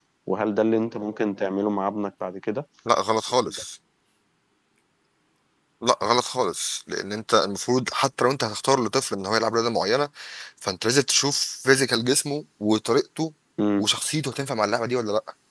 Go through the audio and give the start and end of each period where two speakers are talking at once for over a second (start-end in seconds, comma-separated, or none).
none